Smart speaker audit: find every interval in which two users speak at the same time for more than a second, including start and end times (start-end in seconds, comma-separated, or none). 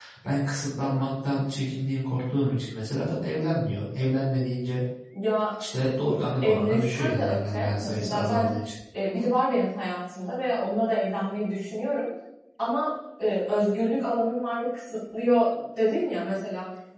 6.4-8.5